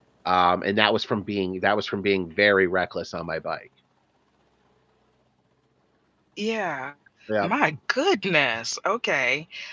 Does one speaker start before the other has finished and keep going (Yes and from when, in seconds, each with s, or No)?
No